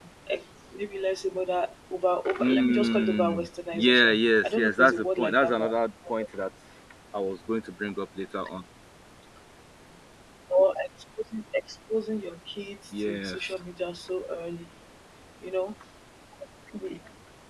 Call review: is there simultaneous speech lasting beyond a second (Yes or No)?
Yes